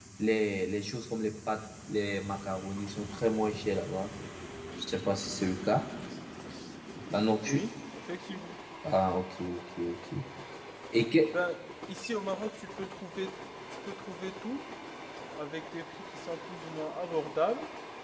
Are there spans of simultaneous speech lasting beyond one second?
No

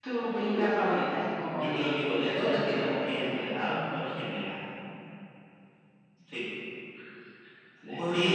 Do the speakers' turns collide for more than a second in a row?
Yes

